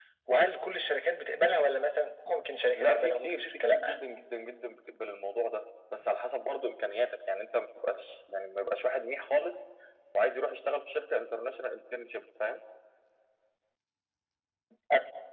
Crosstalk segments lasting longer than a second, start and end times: 2.7-4.0

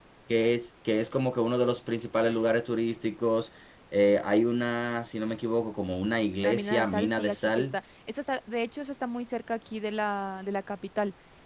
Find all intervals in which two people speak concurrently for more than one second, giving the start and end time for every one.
6.4-7.8

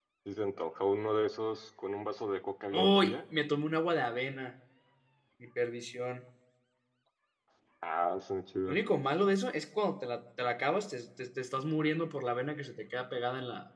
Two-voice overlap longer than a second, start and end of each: none

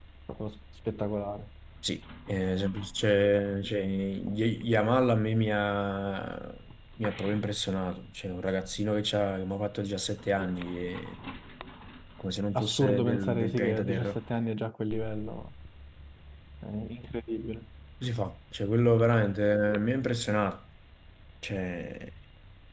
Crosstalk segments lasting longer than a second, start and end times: 12.6-14.2

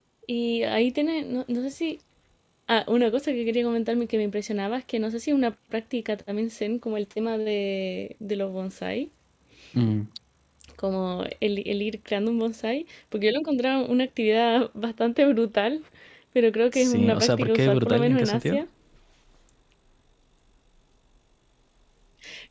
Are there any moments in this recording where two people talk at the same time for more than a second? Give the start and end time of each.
16.7-18.6

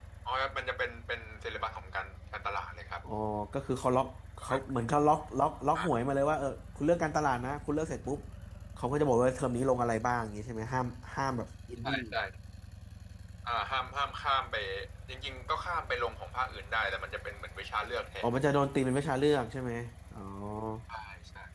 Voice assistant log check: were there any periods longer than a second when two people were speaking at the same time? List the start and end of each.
none

